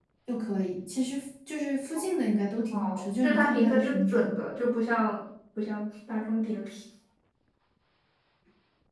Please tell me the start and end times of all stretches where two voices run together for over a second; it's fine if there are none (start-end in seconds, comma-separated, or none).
2.7-4.4